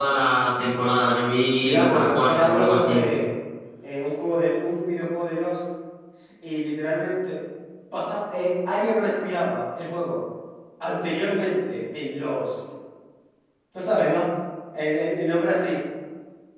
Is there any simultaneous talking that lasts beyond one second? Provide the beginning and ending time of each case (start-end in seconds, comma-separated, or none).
1.6-3.1